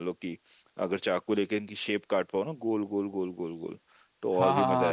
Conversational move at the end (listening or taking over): taking over